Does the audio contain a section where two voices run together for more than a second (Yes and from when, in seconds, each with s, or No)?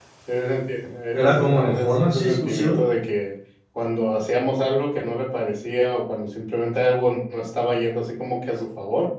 Yes, from 1.2 s